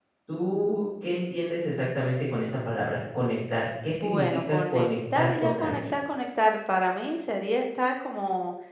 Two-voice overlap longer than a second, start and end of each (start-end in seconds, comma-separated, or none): 4.0-5.9